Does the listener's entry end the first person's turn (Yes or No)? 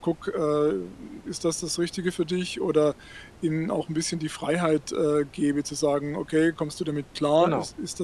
No